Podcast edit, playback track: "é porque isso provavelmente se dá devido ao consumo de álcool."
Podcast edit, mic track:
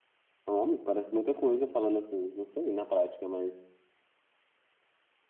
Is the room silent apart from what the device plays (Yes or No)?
No